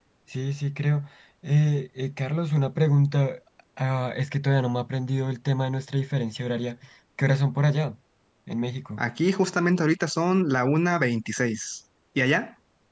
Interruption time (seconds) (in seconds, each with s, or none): none